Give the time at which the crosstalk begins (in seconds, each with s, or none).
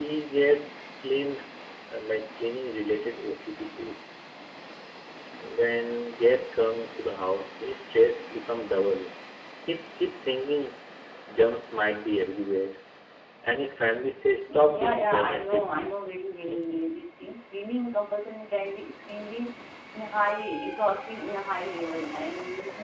14.5 s